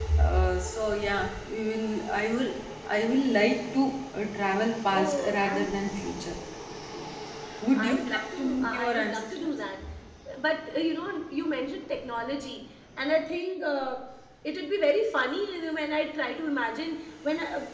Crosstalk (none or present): present